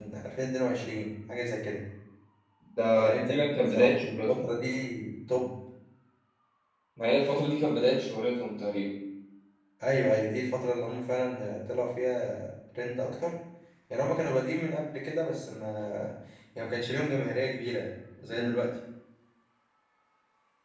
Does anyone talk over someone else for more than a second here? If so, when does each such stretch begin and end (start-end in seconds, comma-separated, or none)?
3.0-4.3